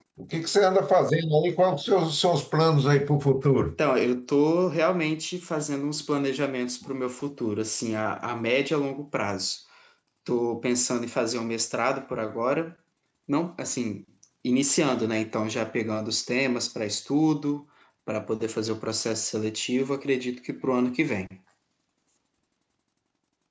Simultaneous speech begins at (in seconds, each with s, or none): none